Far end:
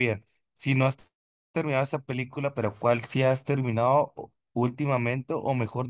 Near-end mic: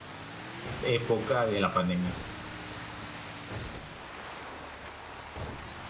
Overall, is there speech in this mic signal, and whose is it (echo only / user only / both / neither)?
user only